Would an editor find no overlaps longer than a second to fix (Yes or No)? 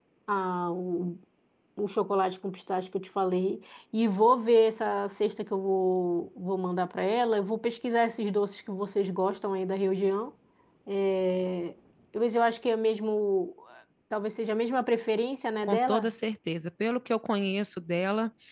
Yes